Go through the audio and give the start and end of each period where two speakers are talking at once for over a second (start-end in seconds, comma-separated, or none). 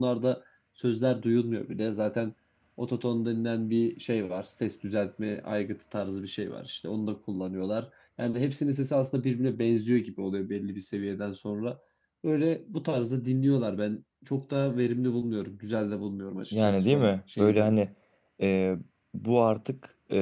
16.5-17.7